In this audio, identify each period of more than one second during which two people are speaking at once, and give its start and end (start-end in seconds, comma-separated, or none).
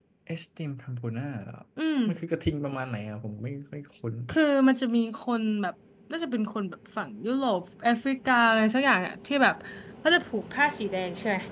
none